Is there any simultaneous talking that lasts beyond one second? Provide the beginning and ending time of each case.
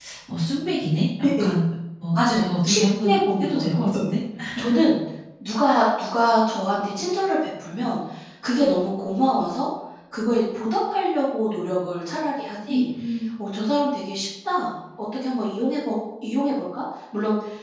2.1-4.1

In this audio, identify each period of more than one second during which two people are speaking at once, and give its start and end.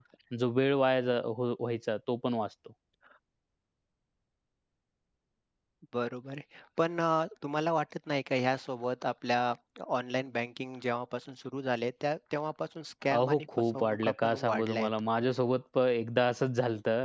13.1-14.9

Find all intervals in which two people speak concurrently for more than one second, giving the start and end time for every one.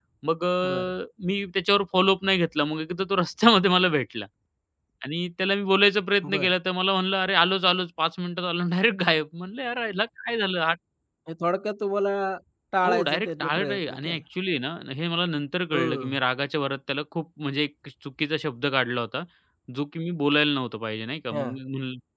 12.8-14.2

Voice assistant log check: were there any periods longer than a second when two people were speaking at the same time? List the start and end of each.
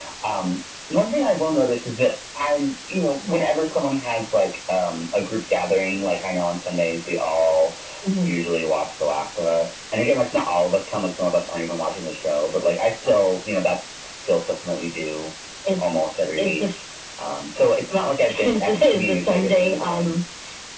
18.4-20.1

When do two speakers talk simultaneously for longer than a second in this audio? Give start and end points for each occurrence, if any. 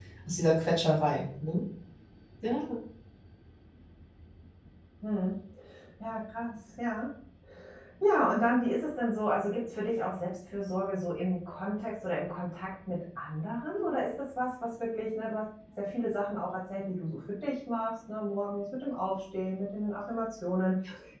none

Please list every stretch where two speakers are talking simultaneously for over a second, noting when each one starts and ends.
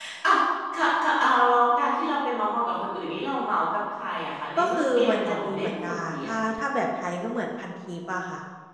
4.6-6.5

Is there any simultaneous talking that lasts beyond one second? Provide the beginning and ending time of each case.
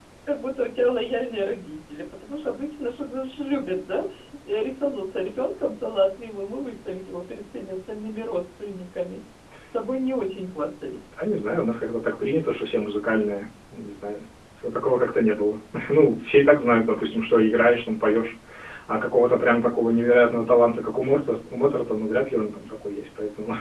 none

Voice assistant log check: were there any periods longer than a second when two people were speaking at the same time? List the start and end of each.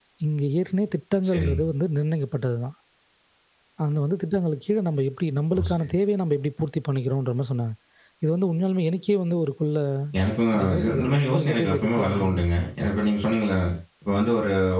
10.6-12.3

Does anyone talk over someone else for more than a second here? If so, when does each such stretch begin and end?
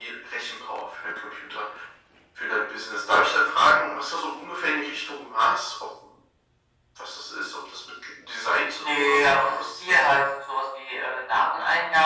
8.8-10.1

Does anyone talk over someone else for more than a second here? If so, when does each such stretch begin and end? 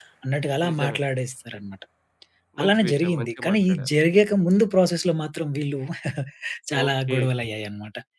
2.6-3.9

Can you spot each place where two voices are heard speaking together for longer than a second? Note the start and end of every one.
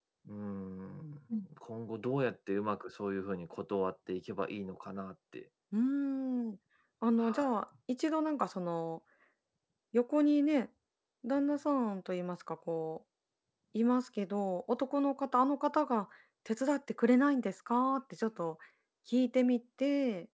none

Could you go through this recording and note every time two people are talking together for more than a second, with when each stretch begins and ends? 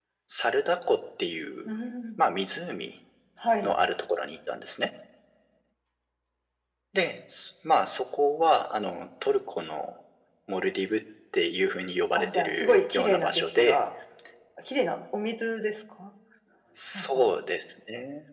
12.2-13.8

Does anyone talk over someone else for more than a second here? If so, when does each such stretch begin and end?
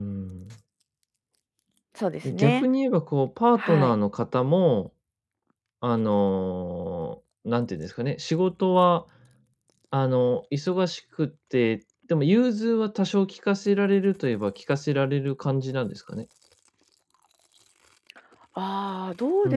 none

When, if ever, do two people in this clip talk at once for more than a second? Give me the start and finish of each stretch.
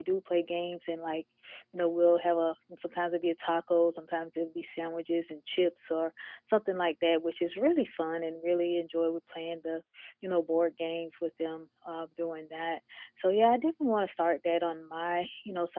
none

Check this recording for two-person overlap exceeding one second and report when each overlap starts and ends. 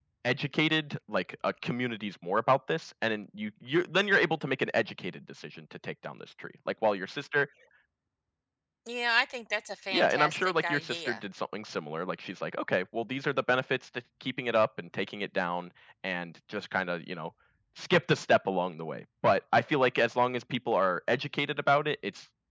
9.9-11.2

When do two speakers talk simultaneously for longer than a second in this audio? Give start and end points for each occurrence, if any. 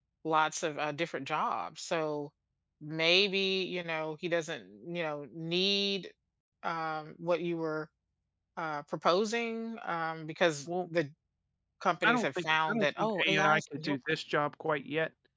12.0-14.0

